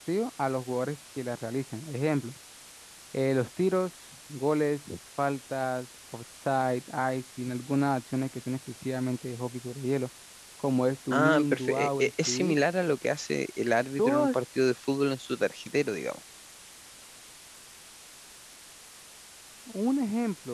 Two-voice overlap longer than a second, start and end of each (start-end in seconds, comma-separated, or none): 11.1-12.6